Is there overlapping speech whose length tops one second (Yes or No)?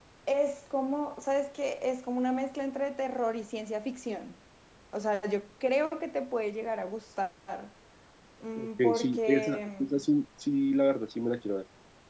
Yes